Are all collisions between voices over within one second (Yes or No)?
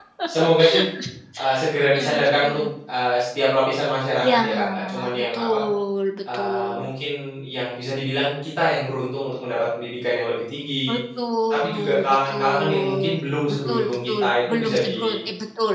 No